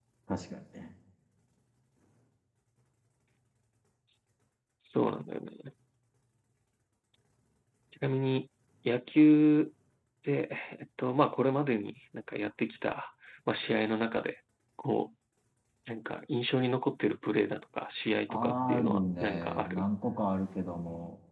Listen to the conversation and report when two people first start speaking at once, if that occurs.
18.3 s

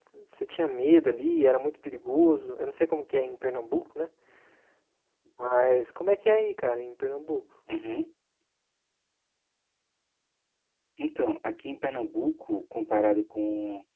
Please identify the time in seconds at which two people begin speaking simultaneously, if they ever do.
none

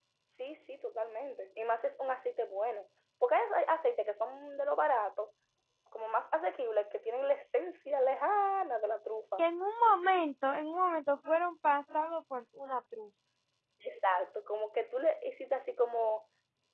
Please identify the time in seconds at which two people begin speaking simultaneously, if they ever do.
none

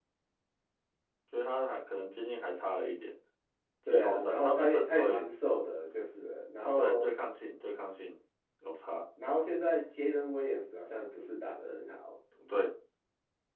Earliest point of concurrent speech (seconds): 3.9 s

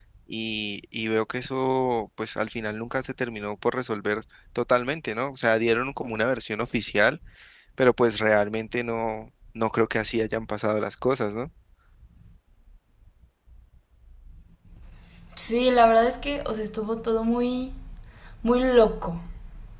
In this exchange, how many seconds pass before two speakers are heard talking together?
none

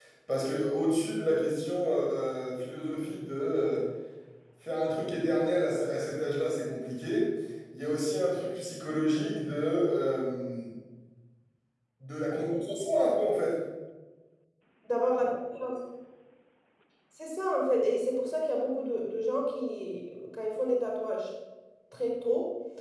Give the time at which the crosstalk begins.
none

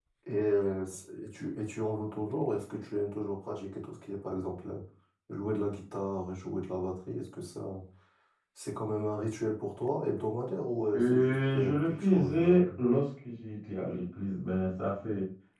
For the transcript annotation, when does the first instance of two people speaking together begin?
10.9 s

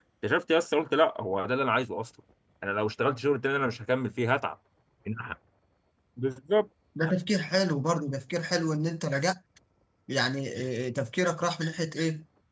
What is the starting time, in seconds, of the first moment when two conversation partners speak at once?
none

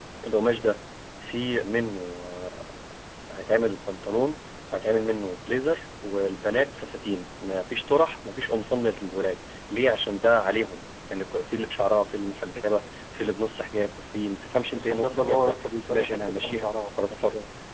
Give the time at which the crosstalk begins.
14.8 s

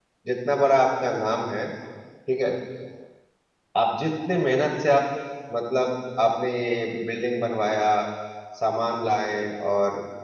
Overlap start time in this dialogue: none

